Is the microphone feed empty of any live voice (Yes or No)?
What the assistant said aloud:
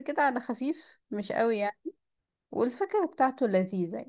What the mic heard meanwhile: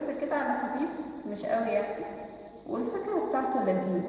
Yes